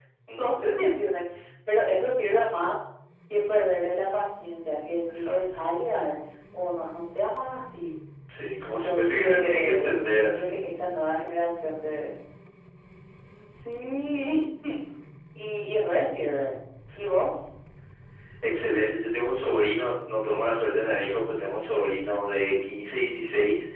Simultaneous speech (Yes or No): Yes